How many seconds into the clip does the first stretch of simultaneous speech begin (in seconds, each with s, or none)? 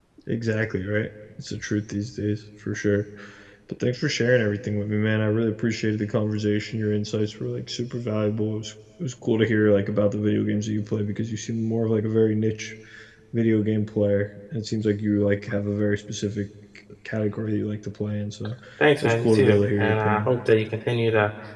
18.8 s